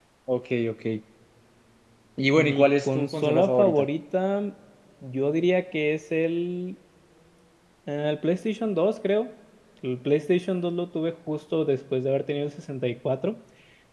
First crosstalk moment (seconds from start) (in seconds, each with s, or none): 2.5 s